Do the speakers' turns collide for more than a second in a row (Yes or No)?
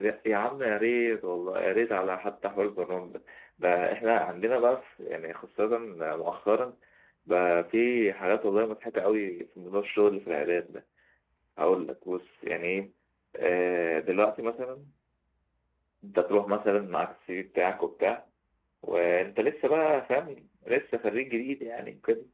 No